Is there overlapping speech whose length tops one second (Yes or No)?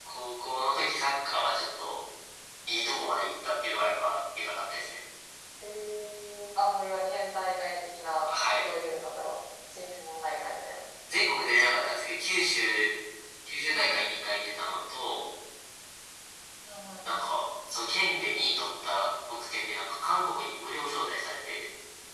No